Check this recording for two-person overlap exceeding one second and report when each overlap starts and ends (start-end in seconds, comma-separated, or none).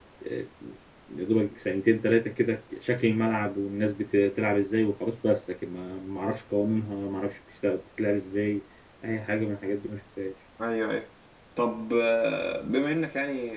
none